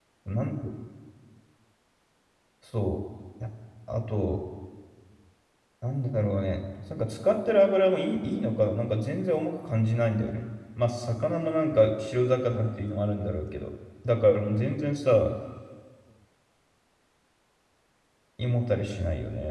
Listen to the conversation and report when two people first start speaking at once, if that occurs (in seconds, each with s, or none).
none